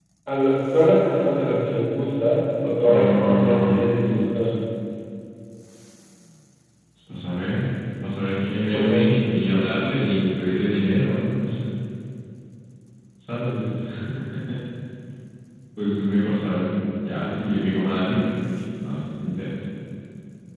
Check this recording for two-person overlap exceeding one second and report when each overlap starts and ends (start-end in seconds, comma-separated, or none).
2.8-4.5